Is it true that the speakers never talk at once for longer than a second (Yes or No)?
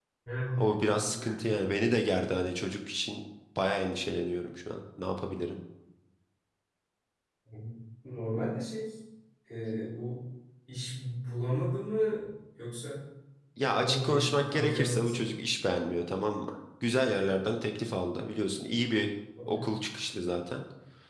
No